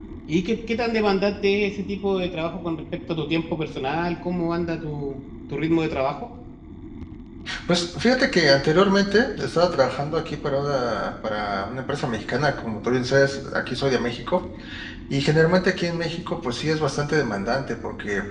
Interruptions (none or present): none